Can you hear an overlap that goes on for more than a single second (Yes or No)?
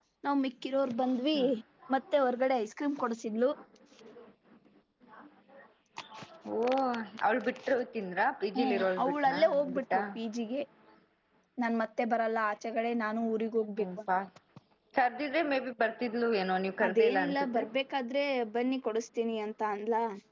Yes